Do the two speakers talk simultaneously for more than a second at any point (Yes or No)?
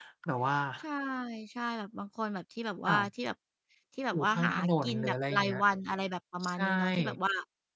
Yes